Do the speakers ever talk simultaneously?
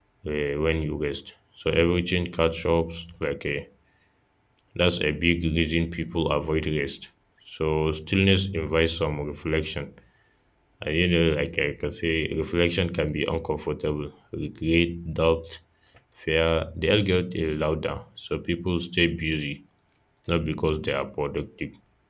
No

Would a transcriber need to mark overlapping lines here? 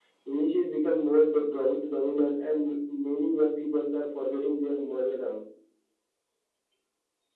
No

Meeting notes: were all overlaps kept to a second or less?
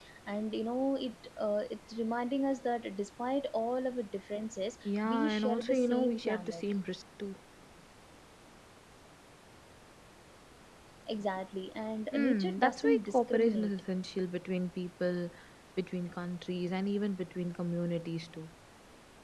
No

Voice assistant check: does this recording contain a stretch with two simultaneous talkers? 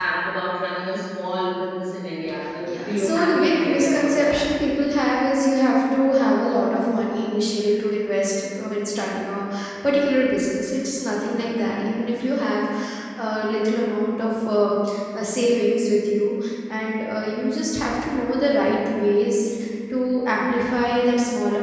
Yes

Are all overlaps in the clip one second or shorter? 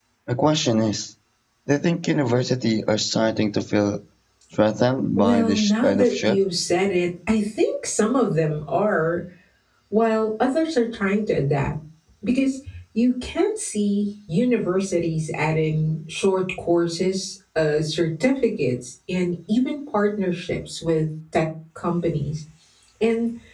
No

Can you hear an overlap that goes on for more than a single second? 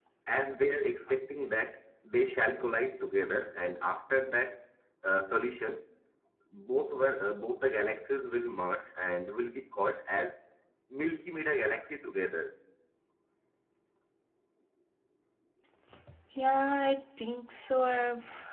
No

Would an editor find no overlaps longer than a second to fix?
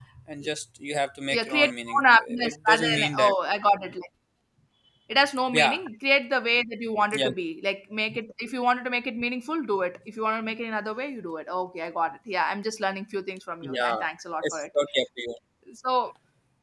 No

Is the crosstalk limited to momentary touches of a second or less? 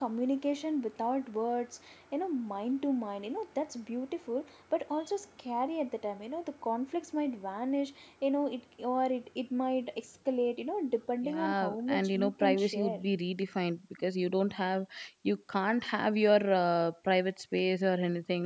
No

